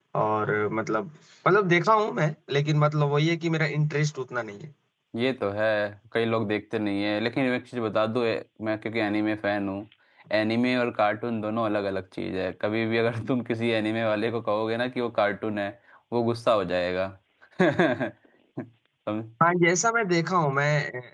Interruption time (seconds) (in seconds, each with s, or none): none